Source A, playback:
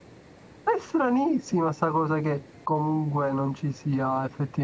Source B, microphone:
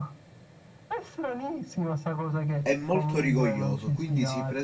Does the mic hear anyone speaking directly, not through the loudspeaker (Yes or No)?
Yes